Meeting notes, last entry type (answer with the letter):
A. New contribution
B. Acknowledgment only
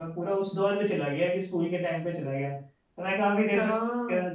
B